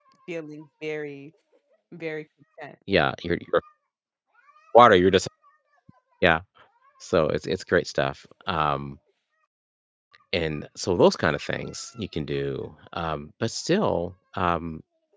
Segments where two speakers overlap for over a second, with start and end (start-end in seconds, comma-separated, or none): none